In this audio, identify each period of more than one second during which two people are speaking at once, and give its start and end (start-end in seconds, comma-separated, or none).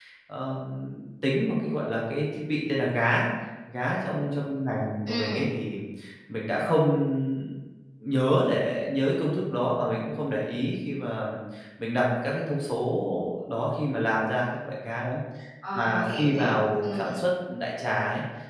15.8-17.2